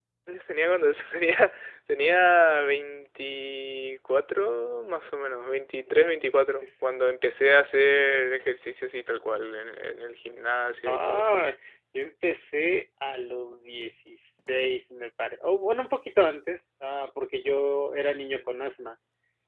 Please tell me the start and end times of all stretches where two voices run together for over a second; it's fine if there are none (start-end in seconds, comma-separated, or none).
none